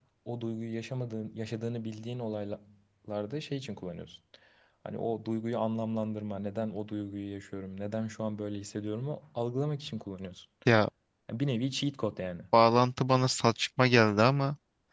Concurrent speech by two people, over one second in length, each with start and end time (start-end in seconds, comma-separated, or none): none